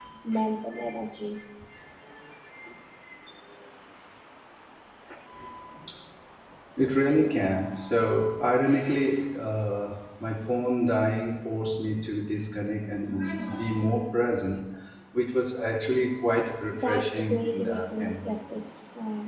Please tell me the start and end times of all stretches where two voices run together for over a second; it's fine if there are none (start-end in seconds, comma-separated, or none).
16.8-18.3